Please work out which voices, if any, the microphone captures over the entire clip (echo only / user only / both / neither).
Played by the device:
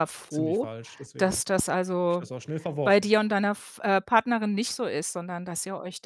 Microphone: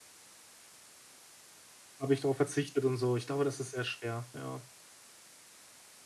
user only